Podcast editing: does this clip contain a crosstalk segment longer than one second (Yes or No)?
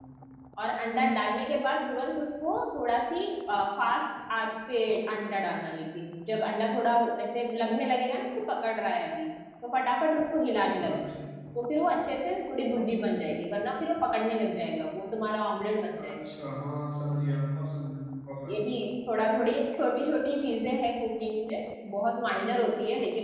No